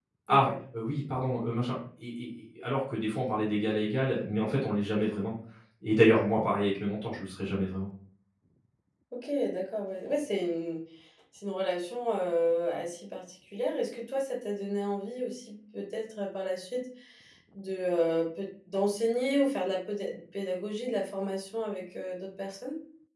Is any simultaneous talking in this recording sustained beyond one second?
No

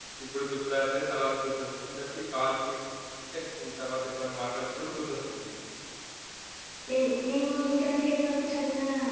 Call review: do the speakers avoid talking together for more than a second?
Yes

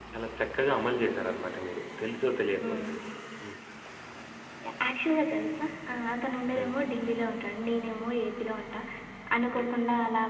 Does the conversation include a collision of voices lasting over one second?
No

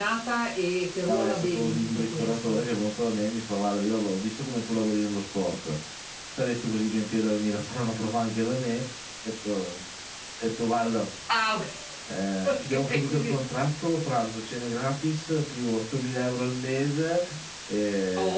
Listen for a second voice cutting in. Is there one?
Yes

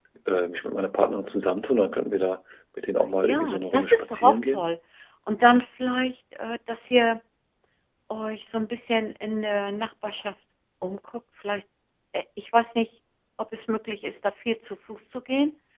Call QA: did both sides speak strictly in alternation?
No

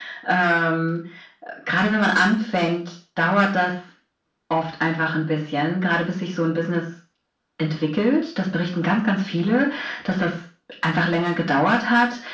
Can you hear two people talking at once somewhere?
No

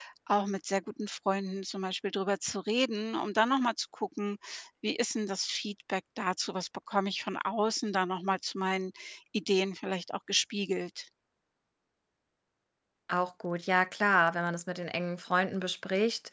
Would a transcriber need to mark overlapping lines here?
No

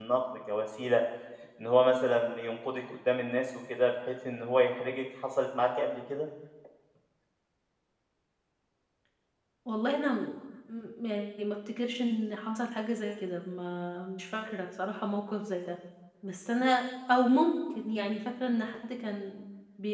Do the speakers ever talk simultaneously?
No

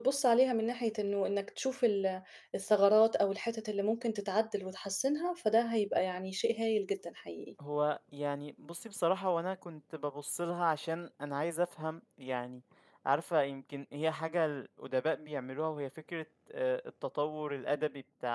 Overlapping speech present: No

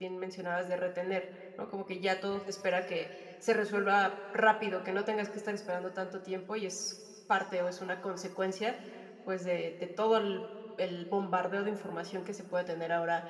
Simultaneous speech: No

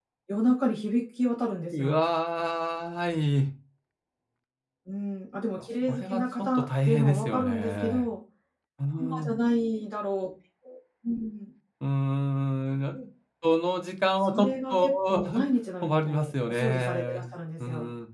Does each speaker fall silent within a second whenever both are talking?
No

